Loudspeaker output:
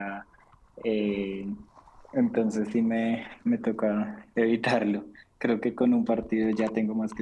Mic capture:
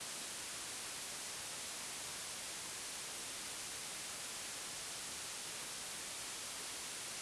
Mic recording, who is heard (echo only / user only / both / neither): neither